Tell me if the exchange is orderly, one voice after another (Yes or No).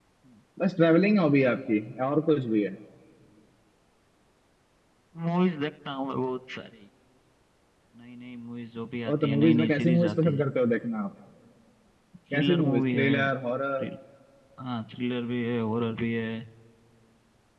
No